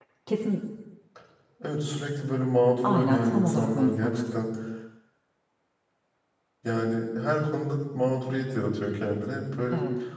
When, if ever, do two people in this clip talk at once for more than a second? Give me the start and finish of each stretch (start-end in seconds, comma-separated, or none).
2.8-4.2